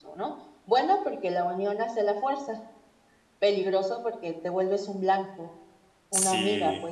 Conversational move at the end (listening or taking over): taking over